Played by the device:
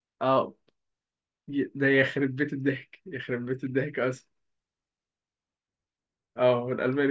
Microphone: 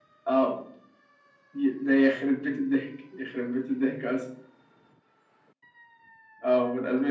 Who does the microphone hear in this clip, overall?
echo only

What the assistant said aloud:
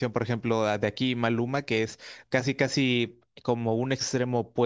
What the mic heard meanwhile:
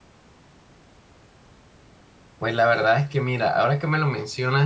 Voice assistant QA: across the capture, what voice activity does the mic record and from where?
user only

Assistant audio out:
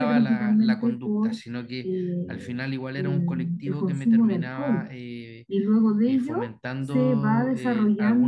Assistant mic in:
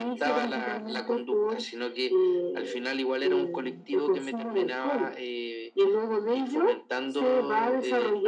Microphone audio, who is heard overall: echo only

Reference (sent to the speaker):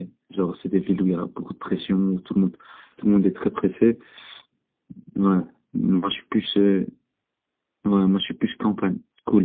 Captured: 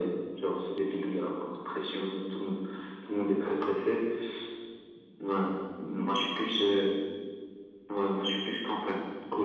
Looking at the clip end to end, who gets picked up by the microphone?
echo only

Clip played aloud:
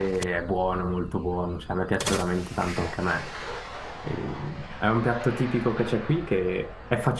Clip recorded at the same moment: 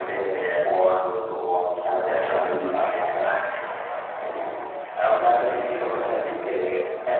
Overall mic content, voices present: both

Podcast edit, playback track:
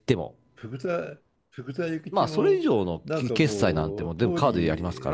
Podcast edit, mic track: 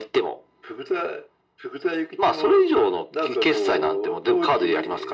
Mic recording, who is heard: echo only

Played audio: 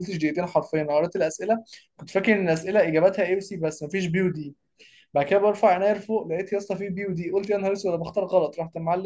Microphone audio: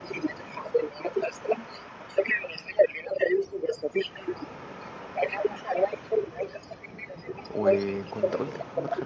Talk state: both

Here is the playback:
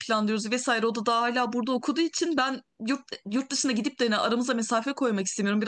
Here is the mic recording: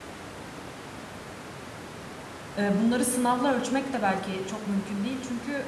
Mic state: user only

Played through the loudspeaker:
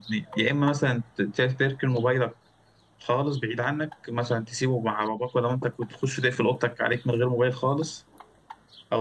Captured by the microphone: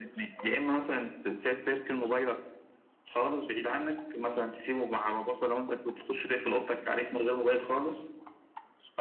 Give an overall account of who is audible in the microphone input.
echo only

